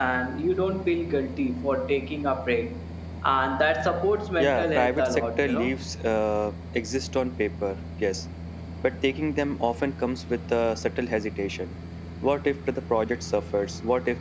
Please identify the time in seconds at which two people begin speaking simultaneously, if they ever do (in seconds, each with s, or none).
4.4 s